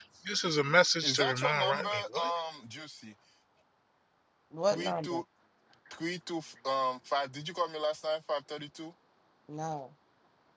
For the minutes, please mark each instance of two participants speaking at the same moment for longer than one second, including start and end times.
1.0-2.3

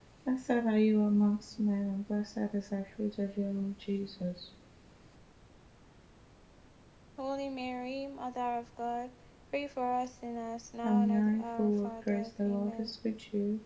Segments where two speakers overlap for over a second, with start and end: 10.8-12.9

